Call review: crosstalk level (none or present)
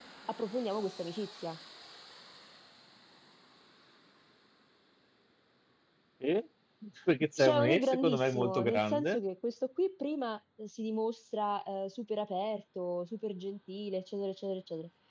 present